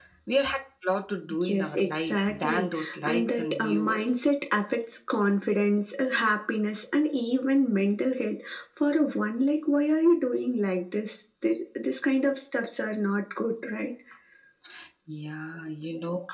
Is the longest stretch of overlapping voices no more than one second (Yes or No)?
No